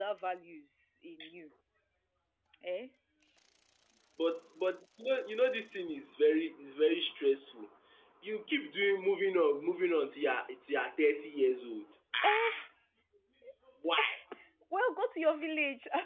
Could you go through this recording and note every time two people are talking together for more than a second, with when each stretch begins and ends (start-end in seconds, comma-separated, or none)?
none